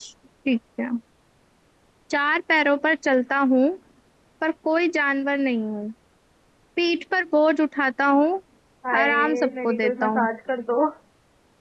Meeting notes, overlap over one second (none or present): present